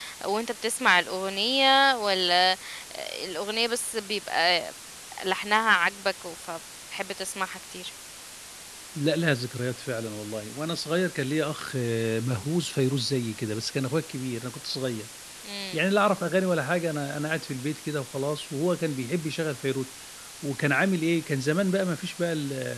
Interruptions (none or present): none